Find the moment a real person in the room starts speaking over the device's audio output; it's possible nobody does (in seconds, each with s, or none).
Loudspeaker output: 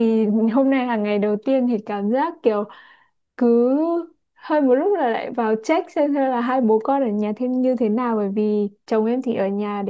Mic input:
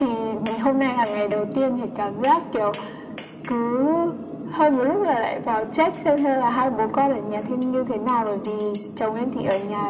none